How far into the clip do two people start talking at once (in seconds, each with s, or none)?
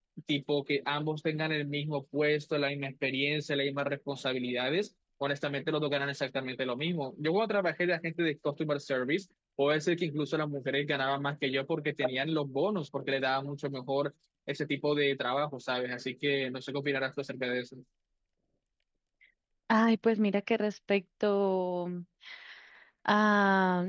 none